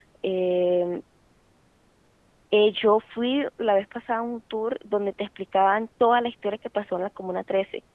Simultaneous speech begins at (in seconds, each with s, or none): none